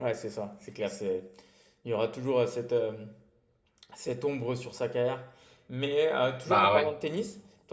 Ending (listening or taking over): listening